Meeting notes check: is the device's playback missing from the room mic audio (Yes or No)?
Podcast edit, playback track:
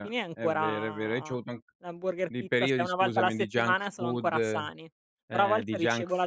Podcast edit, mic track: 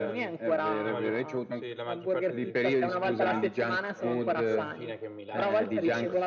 No